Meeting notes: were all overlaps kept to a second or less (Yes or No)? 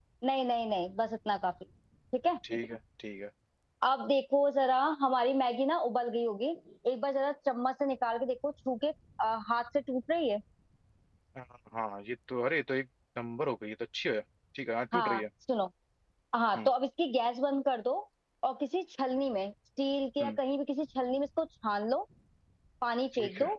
Yes